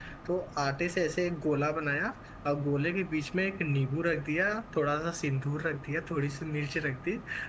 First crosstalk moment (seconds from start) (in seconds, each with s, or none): none